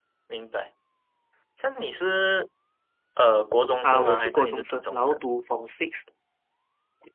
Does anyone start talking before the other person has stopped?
Yes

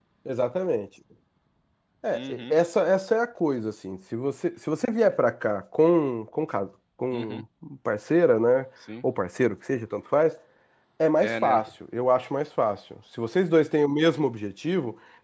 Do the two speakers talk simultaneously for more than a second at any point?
No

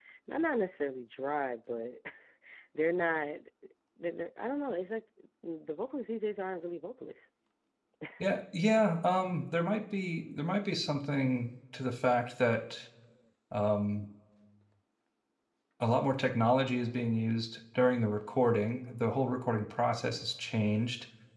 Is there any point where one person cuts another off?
No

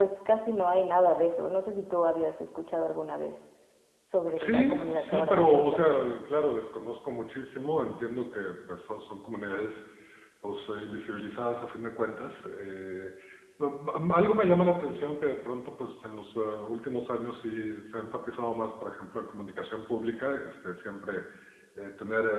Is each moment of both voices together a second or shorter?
No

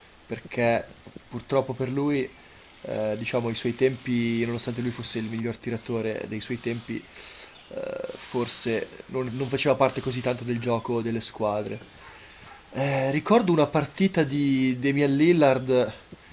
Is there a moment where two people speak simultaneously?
No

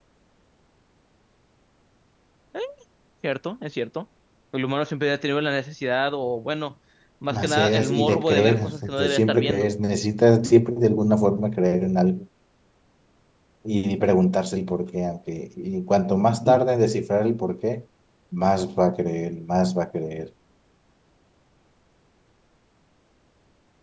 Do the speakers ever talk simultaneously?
Yes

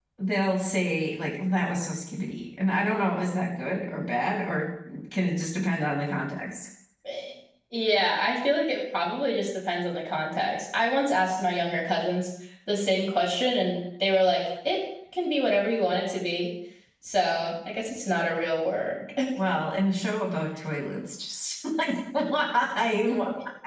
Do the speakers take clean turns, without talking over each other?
Yes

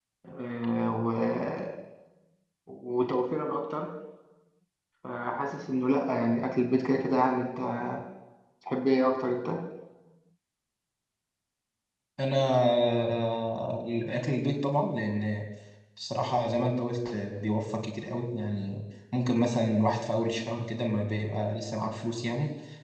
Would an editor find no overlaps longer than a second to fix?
Yes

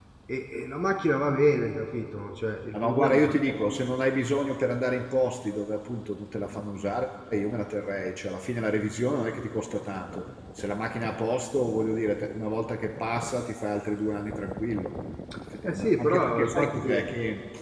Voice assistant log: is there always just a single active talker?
No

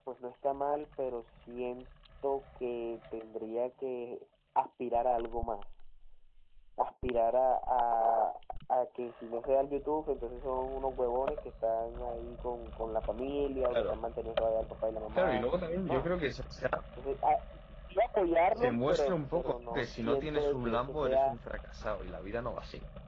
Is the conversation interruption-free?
No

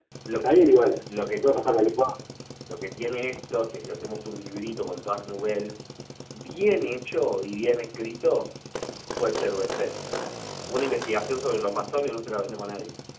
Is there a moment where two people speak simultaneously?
No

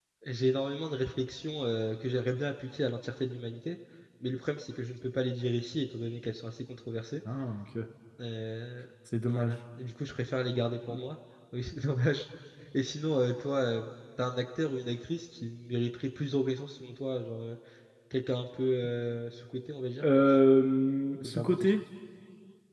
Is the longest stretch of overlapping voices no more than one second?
Yes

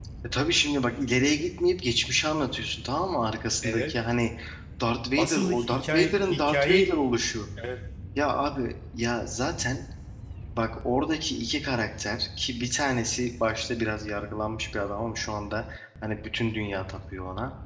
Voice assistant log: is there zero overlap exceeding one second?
No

